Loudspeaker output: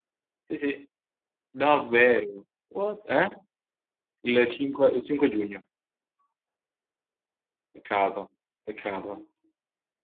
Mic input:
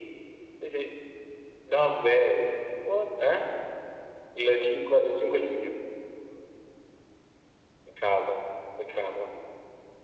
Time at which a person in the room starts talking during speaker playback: none

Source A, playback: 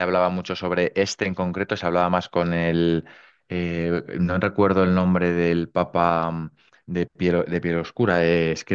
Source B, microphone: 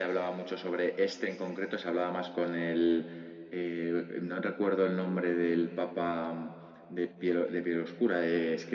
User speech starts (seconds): none

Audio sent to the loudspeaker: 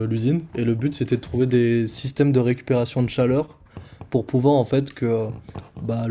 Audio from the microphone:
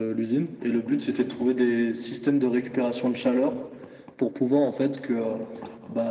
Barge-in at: none

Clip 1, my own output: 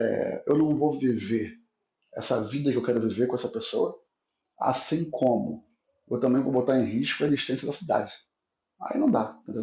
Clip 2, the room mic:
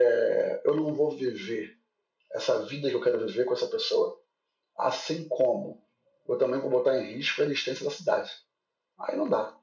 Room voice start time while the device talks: none

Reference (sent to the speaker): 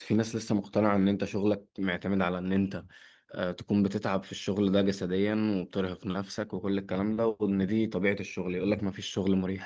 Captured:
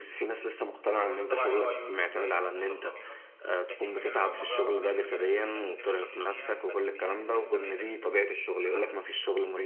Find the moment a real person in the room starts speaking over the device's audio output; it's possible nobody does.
1 s

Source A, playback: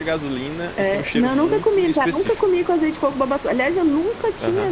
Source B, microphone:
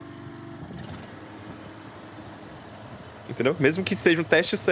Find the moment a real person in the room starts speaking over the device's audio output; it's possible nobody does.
3 s

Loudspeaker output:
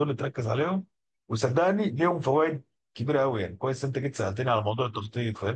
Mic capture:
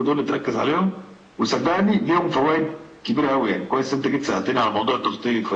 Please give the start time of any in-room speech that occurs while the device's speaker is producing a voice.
none

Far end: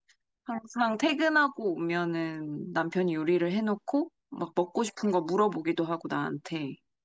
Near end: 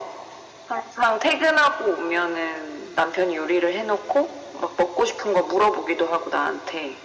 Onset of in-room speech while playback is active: none

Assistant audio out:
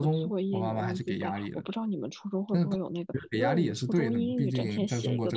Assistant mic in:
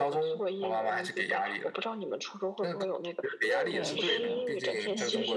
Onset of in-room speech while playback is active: 4 s

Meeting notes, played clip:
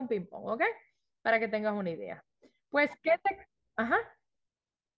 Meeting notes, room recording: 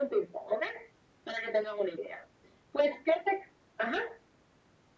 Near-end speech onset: none

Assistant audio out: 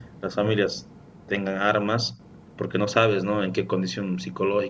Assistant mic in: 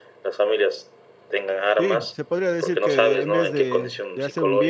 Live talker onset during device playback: 2 s

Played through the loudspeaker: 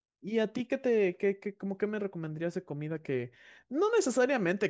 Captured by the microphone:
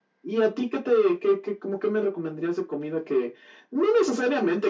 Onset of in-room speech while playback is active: none

